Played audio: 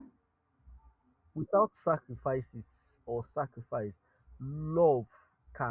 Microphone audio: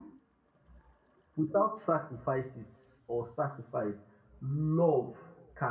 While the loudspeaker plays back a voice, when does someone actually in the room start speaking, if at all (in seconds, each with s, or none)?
none